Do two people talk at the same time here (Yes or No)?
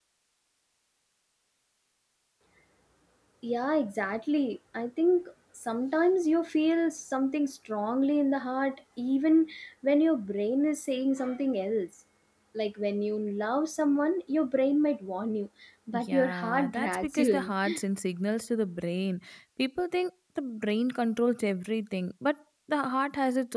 Yes